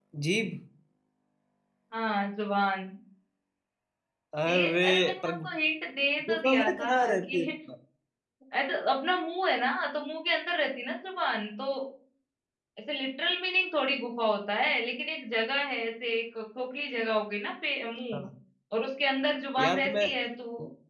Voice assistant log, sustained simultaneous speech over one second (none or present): present